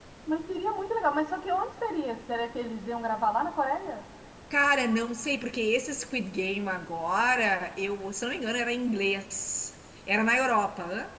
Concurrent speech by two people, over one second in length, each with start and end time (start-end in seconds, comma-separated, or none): none